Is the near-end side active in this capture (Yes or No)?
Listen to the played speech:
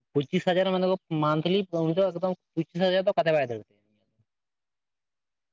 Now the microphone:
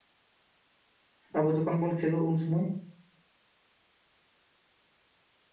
Yes